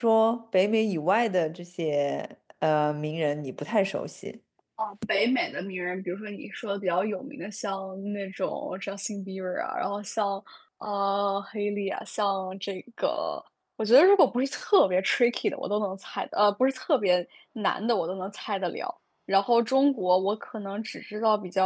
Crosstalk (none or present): none